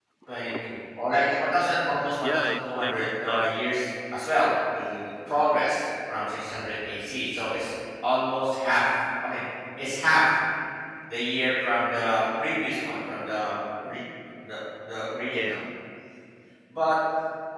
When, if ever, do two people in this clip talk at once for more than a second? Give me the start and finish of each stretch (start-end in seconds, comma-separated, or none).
2.2-3.5